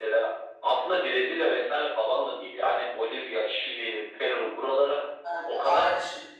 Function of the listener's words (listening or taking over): taking over